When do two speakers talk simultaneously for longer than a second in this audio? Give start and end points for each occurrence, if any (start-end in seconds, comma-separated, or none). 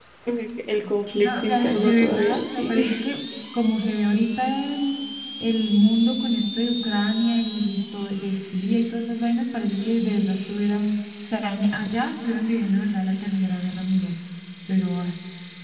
1.1-2.9